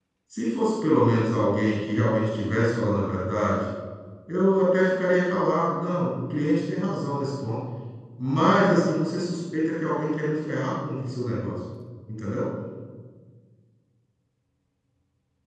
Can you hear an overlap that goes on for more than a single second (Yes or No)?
No